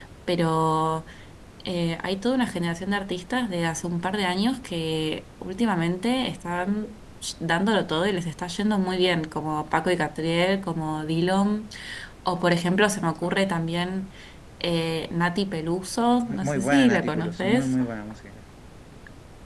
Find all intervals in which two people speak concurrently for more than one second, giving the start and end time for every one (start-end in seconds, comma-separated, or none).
16.3-17.8